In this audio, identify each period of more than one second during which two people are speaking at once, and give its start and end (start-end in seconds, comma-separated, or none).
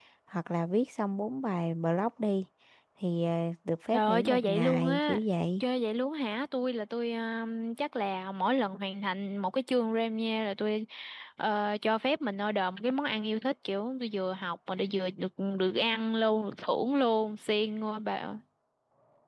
3.9-5.2